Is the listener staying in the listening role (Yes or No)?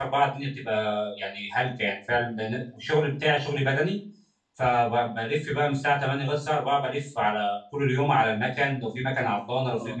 Yes